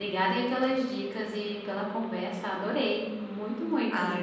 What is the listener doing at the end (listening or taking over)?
taking over